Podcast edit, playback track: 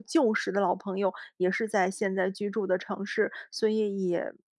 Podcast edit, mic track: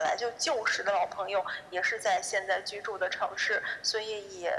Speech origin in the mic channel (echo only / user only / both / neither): echo only